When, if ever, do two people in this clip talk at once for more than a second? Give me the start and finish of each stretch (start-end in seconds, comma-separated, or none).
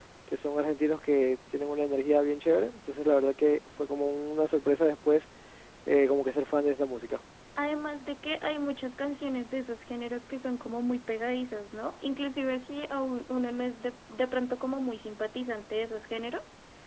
none